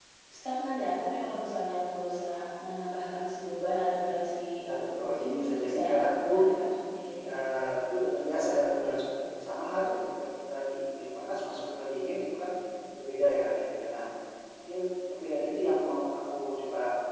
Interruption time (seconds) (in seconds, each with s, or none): 4.7 s